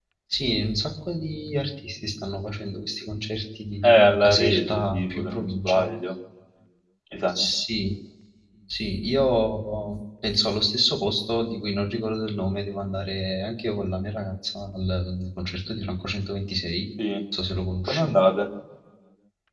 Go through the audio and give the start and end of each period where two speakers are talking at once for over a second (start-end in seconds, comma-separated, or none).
3.8-5.9